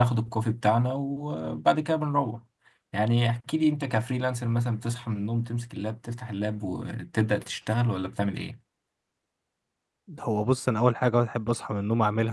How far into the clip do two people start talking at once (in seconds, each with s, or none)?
none